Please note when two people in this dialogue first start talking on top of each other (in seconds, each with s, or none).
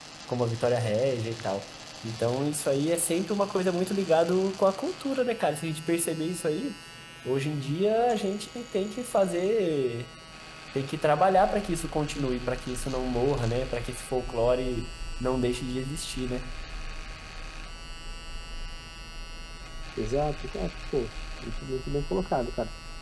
none